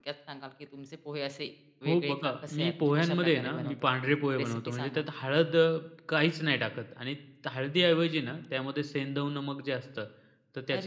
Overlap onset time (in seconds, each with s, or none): 1.9 s